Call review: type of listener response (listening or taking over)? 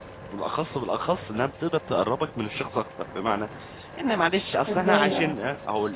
listening